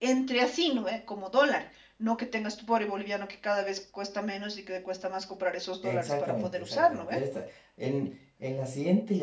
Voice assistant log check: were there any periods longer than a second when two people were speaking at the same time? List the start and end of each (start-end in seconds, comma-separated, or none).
5.8-7.2